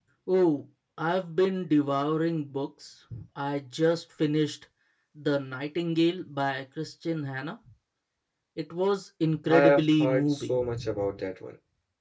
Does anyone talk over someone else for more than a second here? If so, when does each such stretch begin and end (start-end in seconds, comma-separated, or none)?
9.5-11.1